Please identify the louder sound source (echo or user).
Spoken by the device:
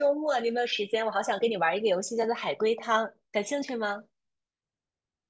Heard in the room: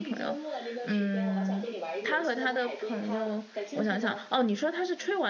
user